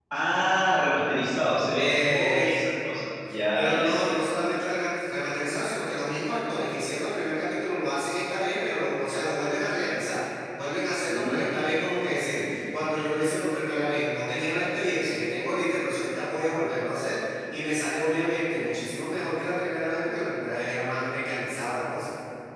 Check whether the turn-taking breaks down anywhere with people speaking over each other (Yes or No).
Yes